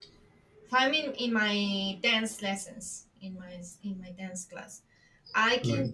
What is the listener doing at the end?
listening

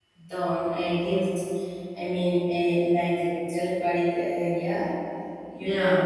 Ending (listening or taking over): listening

